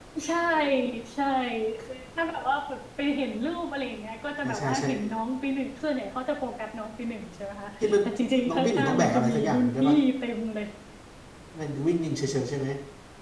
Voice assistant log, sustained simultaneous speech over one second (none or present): present